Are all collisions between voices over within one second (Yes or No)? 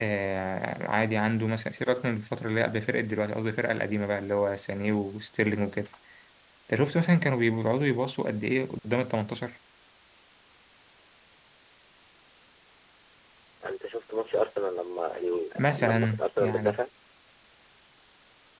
No